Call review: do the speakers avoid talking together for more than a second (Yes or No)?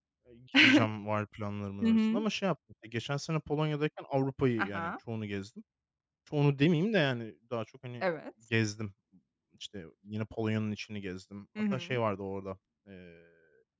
Yes